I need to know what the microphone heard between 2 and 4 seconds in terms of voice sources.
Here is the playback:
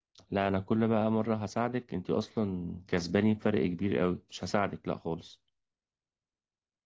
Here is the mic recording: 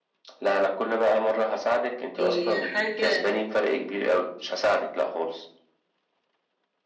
both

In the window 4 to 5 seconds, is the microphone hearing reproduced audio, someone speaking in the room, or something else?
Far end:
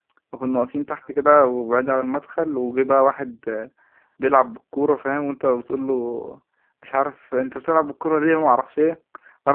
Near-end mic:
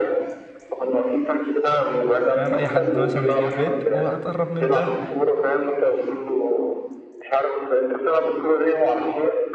both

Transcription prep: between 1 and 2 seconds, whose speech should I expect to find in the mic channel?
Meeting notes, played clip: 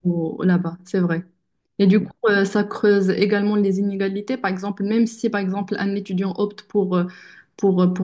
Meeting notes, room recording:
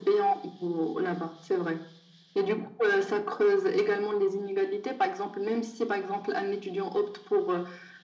echo only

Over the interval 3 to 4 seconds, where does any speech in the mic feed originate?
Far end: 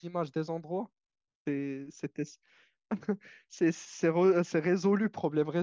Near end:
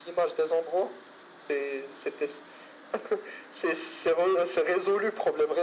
echo only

